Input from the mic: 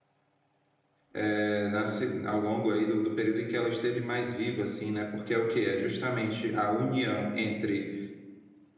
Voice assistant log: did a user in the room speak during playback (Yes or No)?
Yes